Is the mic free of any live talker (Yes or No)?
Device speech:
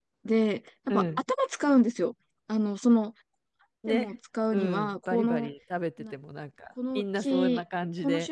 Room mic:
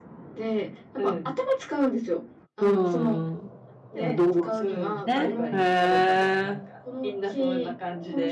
No